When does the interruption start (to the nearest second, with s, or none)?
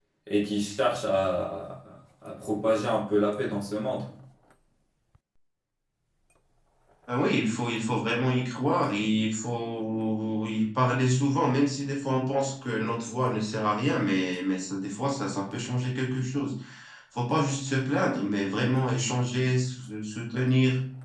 none